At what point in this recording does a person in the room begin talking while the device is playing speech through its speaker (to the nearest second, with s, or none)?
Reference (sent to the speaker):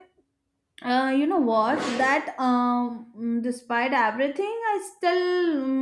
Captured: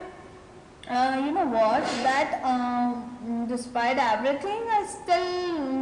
none